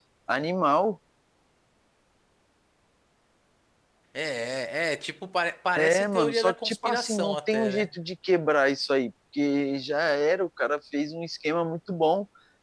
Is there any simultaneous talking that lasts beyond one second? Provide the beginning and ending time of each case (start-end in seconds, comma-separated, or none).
5.8-7.9